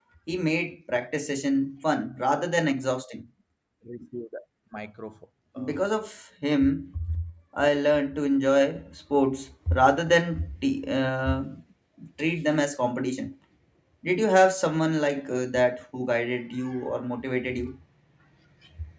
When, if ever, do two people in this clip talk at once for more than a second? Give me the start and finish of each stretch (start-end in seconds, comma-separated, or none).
none